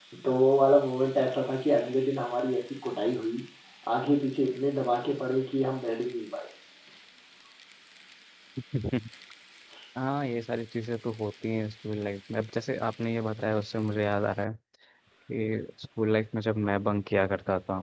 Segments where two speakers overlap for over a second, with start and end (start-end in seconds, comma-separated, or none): none